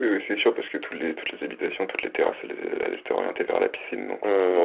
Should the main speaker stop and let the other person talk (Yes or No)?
Yes